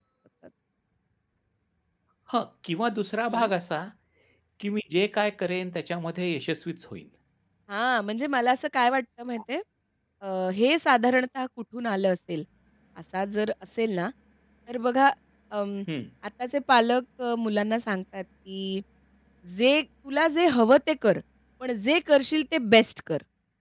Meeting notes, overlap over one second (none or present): none